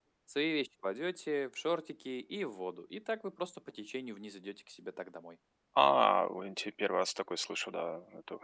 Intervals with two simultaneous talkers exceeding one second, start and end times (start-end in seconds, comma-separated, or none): none